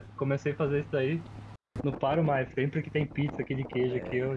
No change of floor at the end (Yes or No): Yes